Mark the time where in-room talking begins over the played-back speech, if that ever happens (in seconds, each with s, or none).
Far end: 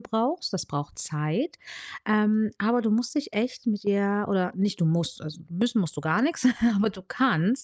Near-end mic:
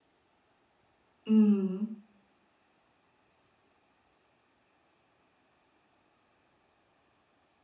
1.3 s